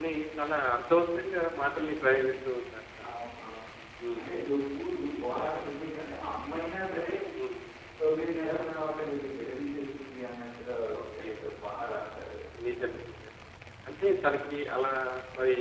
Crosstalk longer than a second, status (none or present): none